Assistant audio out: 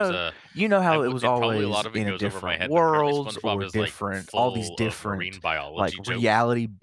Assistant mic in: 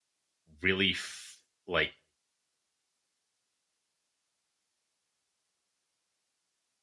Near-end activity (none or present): present